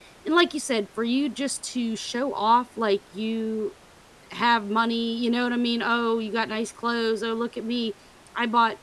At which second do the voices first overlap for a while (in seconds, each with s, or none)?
none